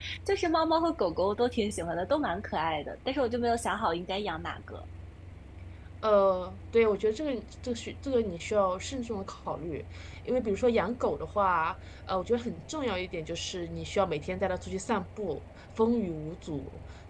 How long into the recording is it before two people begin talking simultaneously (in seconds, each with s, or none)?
none